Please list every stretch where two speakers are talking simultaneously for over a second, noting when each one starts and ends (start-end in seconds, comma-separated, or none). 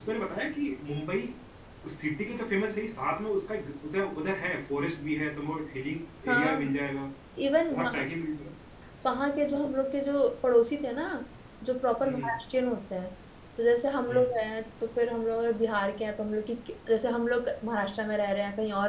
none